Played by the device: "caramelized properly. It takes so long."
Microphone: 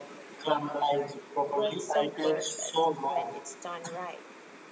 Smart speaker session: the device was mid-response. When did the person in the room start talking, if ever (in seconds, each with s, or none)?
1.5 s